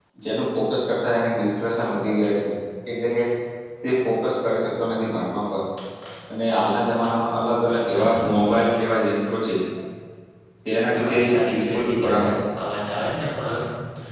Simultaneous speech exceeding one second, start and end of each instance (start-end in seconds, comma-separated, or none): 10.9-12.2